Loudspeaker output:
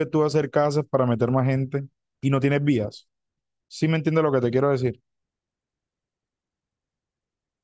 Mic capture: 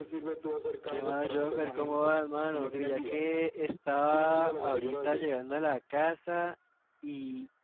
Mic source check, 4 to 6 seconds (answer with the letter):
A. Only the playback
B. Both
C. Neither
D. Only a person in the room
B